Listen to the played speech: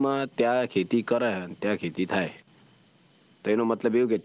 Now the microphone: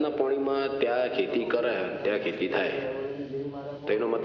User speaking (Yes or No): Yes